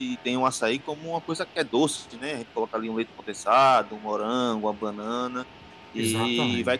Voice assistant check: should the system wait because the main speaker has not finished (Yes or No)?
Yes